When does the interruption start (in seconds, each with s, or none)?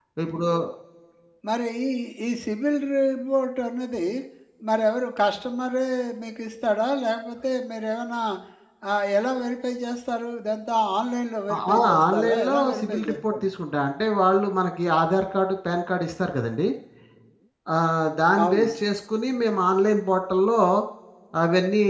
11.5 s